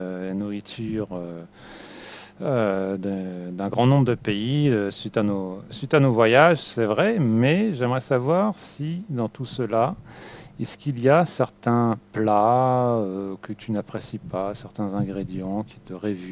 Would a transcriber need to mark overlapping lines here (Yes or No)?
No